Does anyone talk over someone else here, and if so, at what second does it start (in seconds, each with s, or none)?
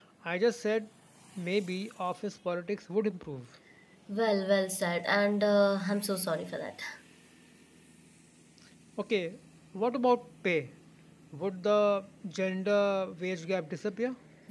none